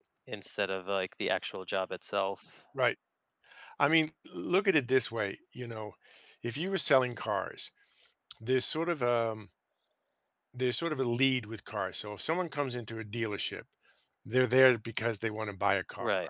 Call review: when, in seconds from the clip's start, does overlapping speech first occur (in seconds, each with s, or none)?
none